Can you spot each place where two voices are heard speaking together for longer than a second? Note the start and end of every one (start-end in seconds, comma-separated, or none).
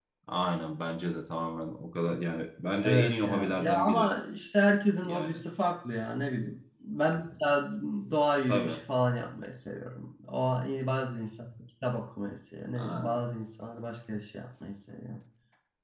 2.8-4.1